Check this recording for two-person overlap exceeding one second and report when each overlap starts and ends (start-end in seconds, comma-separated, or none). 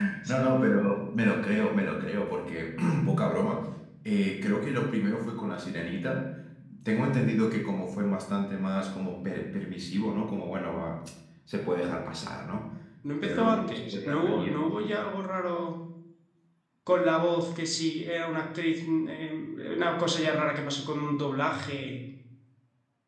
13.2-14.6